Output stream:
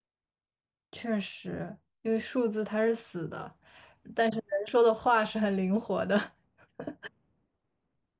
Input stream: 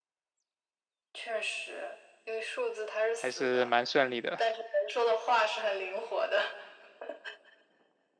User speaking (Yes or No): Yes